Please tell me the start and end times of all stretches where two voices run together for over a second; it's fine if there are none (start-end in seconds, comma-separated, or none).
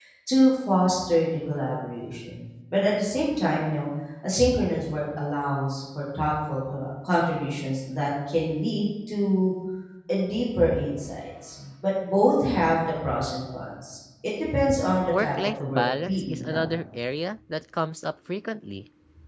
15.1-16.7